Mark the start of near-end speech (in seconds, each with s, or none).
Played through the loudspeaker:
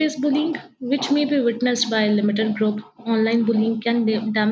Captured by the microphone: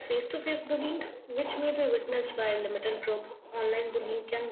none